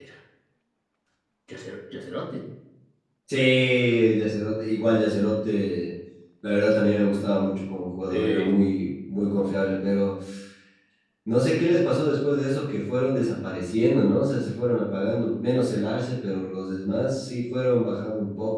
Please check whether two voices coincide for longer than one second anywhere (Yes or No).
No